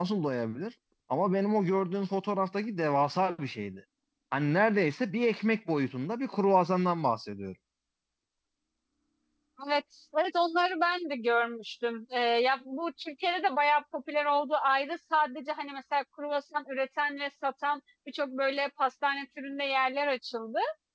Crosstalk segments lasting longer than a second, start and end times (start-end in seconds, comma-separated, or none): none